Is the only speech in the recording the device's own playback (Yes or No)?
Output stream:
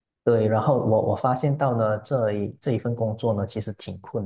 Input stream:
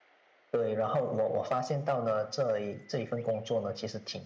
Yes